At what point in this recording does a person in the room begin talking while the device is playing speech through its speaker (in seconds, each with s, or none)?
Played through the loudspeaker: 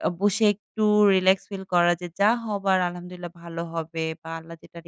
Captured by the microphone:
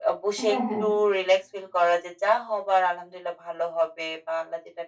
0.4 s